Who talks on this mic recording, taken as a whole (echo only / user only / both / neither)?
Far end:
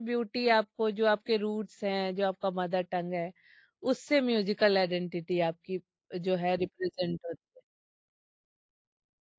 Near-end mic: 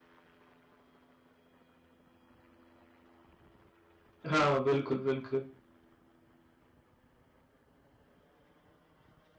user only